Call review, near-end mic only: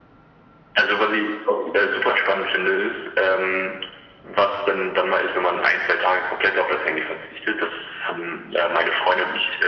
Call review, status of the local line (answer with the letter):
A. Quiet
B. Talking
A